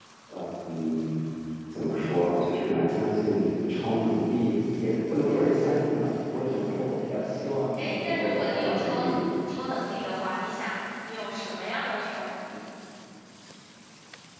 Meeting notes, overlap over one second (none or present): present